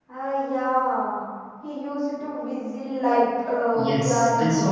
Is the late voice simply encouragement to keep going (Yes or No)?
No